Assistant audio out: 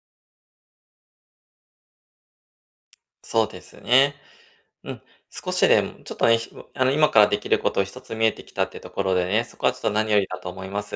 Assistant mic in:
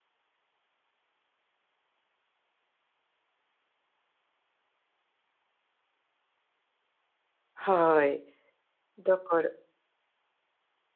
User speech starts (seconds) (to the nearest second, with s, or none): 8 s